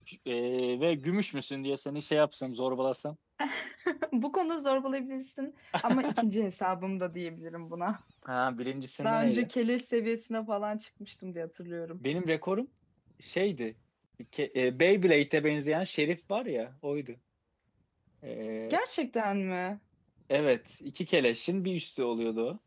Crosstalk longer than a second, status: none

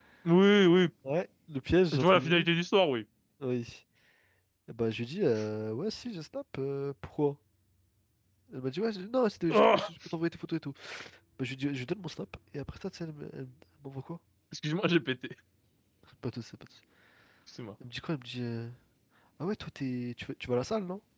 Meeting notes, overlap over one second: none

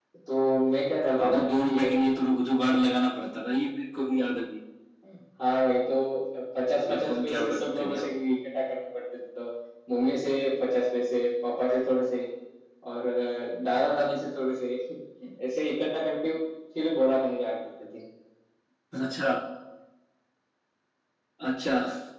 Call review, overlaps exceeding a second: present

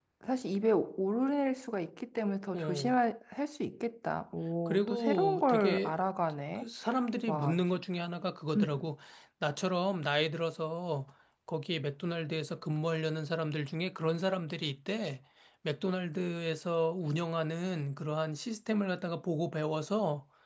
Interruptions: present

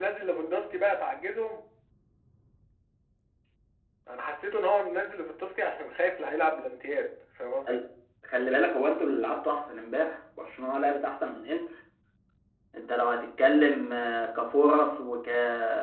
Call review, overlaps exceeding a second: none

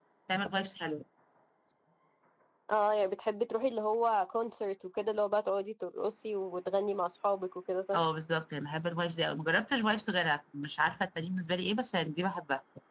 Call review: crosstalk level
none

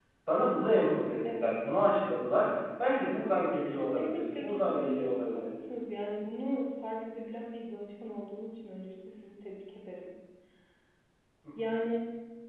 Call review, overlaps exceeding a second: present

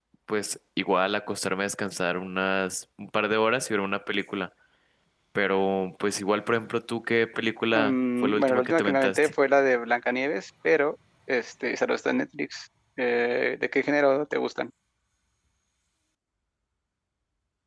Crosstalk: present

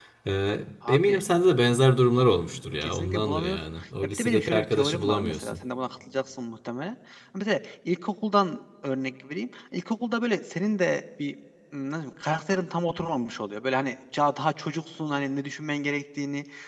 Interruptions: present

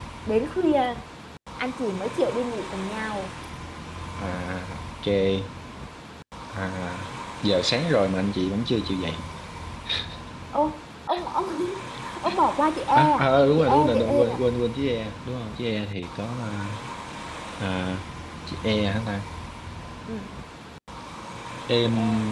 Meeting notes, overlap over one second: present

